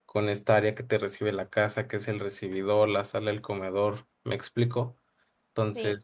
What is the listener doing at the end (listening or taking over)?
taking over